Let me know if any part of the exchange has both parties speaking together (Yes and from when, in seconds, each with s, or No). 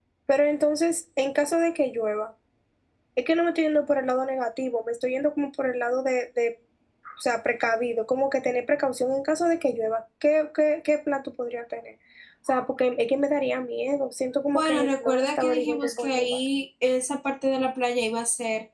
Yes, from 14.5 s